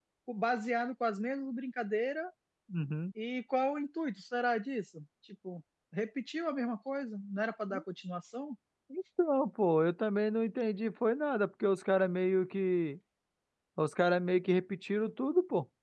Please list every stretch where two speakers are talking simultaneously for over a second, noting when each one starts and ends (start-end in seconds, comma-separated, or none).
none